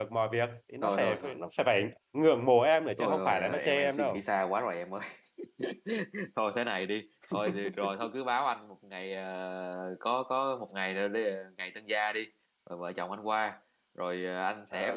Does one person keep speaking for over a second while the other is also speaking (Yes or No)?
Yes